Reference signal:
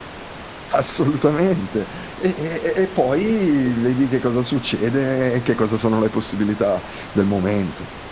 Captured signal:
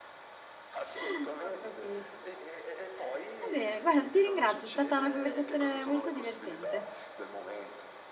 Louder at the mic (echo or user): user